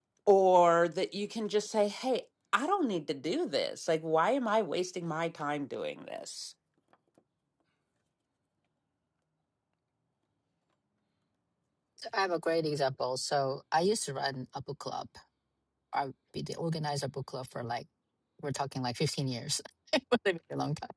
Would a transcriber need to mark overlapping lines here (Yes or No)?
No